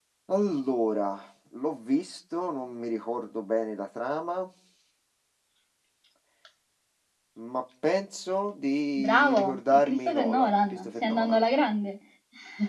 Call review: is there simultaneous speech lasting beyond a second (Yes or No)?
Yes